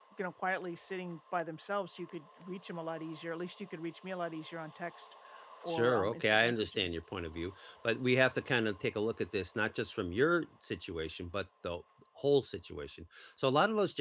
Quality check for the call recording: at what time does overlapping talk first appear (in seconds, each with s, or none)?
5.7 s